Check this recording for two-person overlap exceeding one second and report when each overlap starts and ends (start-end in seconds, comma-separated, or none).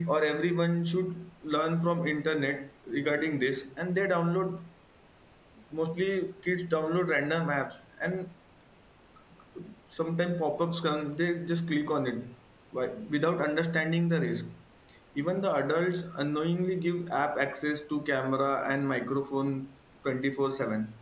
none